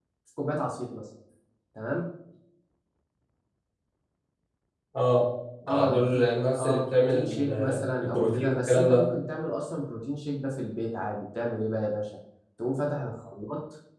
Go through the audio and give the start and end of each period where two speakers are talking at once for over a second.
6.6-9.1

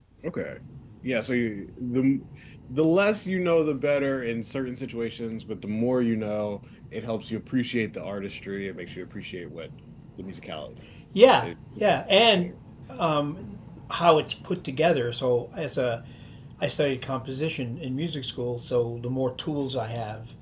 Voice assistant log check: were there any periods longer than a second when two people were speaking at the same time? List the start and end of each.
none

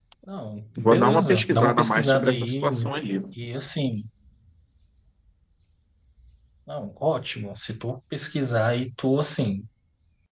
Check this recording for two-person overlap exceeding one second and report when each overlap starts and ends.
0.8-2.8

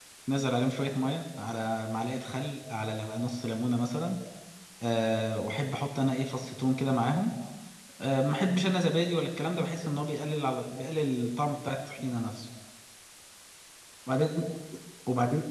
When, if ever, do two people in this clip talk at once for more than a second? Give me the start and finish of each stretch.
none

